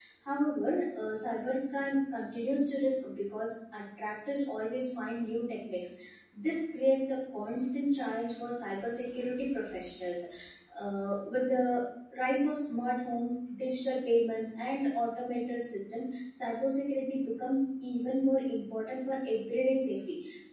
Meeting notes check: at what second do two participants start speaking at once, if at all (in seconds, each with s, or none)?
none